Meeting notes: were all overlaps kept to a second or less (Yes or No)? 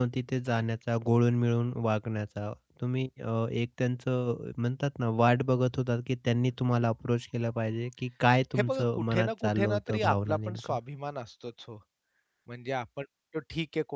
No